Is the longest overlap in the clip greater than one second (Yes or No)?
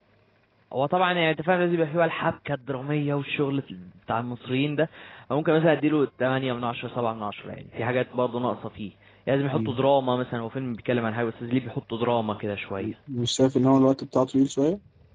No